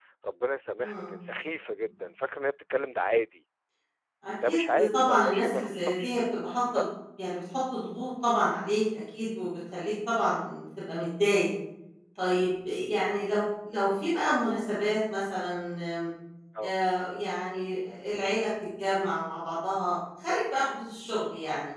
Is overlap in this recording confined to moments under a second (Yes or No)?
No